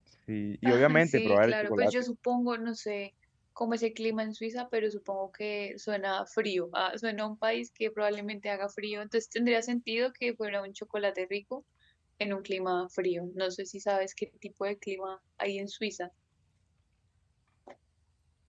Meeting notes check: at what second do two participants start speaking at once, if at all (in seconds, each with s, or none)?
0.7 s